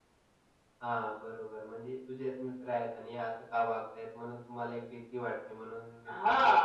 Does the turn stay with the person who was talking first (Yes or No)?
No